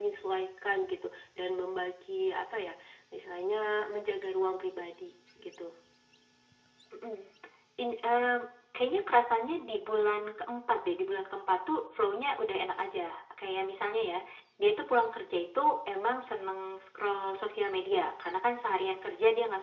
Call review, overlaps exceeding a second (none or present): none